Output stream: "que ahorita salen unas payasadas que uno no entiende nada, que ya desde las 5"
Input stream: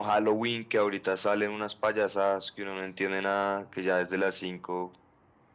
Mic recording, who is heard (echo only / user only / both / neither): echo only